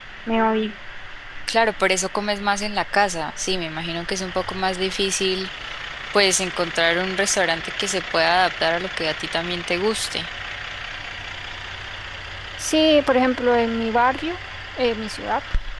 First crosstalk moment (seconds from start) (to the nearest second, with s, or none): none